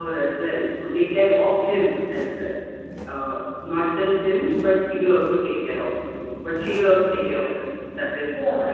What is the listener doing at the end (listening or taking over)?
taking over